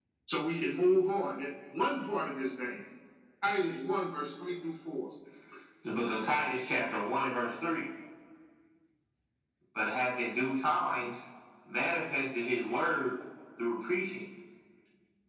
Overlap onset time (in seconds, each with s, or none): none